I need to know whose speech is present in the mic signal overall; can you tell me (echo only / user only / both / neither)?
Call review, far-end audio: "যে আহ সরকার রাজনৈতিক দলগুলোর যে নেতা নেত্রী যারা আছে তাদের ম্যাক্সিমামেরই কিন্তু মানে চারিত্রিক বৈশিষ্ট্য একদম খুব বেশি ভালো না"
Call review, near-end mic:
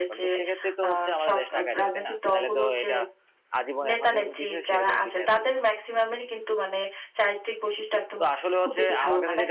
both